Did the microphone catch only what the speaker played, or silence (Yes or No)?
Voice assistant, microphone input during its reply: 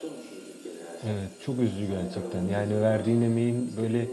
No